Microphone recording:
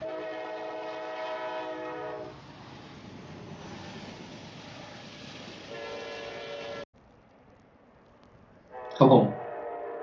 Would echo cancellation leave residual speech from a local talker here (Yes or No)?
Yes